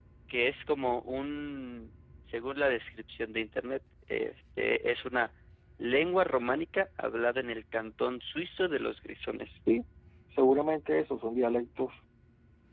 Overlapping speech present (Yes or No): No